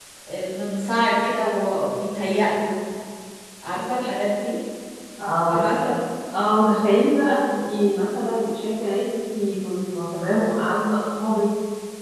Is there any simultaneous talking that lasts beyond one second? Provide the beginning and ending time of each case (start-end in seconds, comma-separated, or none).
none